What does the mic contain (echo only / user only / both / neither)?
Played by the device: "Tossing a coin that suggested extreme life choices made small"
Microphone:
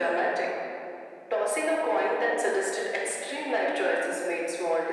echo only